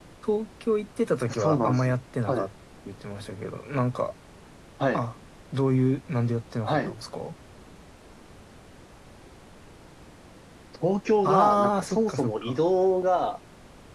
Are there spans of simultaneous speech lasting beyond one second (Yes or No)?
Yes